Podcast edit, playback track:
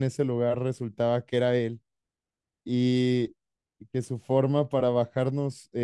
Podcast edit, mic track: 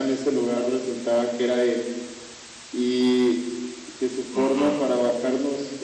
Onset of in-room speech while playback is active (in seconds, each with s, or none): 4.3 s